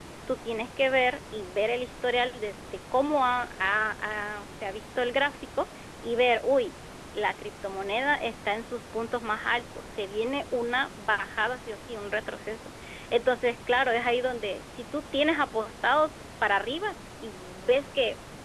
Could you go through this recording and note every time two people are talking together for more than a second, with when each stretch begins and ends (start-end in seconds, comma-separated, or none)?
none